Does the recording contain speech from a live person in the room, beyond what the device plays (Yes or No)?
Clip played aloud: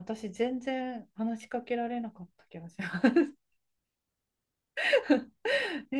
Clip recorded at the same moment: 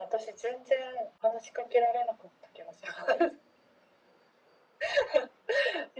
No